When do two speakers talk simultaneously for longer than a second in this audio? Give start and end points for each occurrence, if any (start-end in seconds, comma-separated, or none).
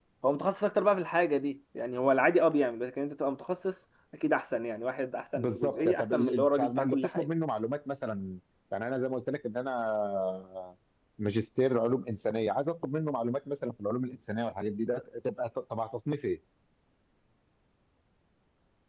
5.3-7.3